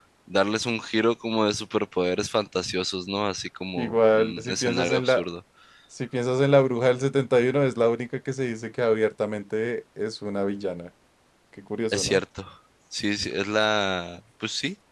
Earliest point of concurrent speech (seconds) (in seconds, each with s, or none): 3.8 s